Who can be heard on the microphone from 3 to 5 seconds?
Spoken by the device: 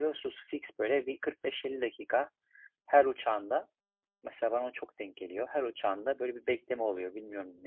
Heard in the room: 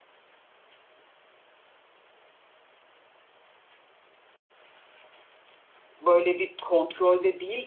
neither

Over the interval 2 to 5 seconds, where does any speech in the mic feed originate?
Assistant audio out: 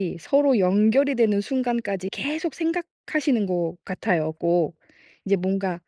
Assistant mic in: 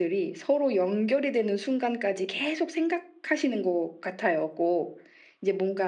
echo only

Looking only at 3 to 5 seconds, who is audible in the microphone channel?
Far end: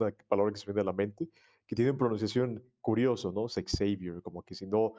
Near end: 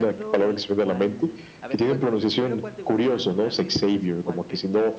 both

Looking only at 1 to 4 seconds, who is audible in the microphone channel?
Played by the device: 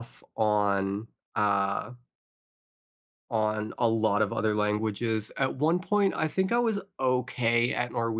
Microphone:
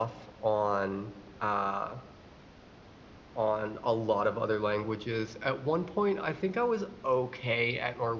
echo only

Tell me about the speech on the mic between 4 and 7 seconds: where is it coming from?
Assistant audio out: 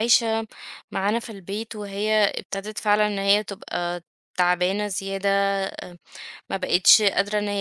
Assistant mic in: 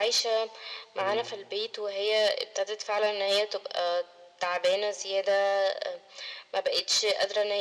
echo only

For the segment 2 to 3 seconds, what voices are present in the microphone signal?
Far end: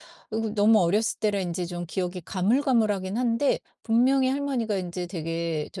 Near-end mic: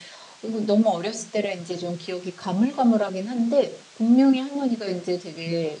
echo only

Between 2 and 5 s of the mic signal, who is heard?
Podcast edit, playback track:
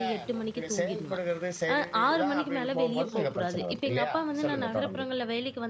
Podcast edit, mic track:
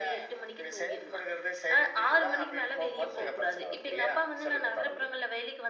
echo only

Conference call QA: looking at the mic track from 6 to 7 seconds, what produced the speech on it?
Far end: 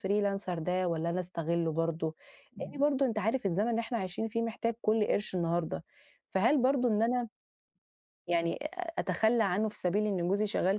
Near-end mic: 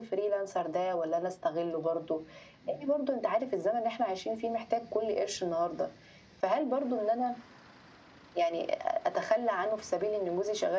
echo only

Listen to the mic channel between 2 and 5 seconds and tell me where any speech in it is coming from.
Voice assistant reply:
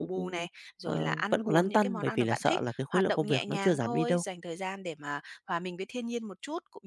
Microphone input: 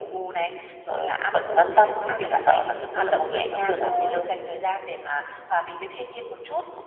echo only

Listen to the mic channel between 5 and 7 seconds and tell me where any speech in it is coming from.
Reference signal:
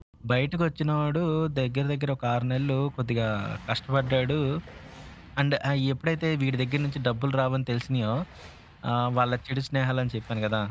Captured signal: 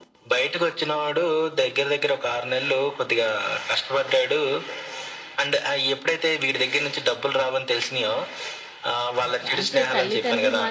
echo only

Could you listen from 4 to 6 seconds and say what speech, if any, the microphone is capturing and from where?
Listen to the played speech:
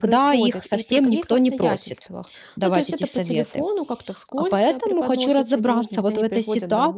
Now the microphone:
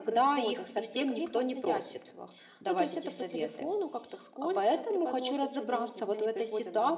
echo only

